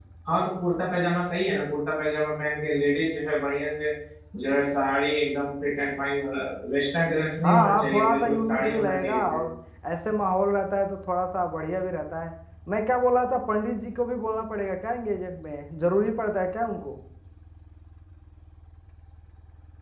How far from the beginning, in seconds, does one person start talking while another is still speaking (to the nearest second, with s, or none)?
7 s